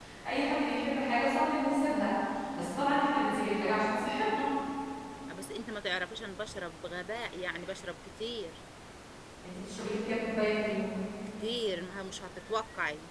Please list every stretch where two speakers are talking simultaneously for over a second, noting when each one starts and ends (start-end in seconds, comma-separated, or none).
none